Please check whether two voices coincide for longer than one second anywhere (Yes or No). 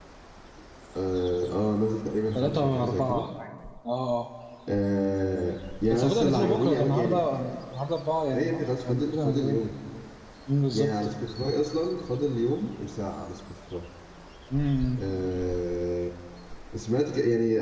Yes